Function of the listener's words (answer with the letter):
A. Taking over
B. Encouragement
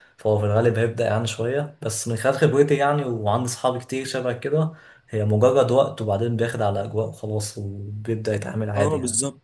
A